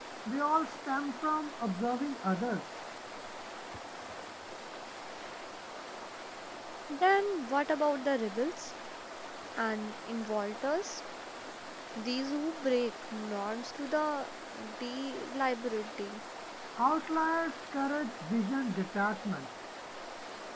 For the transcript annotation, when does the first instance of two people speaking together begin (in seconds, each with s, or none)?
none